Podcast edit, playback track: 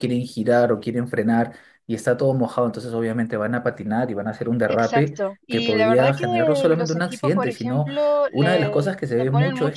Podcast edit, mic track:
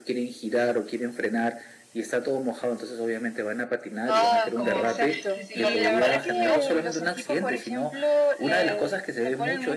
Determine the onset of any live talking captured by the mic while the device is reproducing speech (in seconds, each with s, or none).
4.0 s